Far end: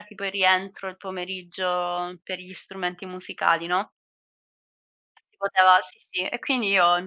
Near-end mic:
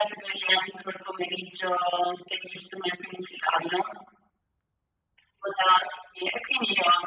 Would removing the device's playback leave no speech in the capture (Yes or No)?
Yes